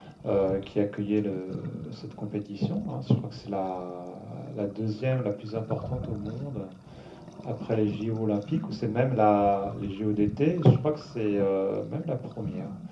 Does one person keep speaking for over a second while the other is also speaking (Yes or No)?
No